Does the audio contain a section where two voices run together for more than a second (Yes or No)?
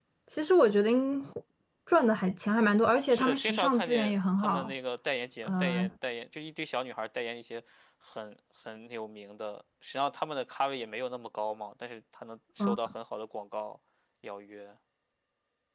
Yes